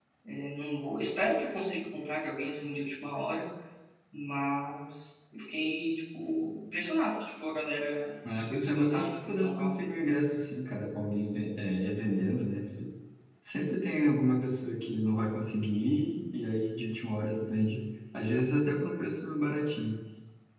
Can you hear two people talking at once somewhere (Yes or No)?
Yes